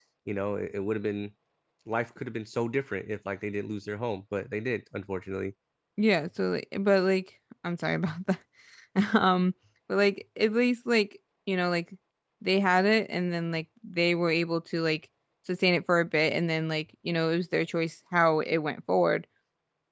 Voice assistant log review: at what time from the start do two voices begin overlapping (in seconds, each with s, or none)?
none